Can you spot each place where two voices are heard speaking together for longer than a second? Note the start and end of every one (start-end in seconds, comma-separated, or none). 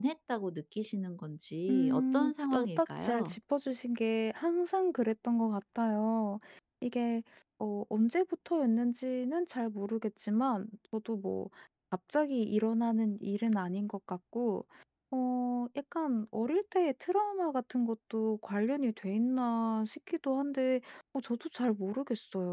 1.7-3.4